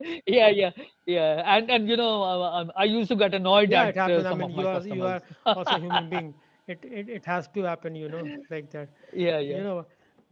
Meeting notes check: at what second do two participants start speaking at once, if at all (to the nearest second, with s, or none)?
4 s